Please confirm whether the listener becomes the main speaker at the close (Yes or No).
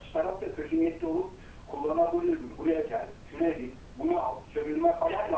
Yes